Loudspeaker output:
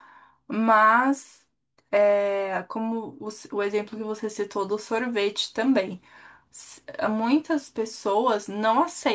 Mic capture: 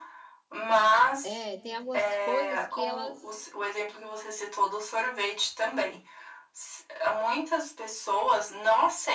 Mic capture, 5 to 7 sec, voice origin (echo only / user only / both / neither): echo only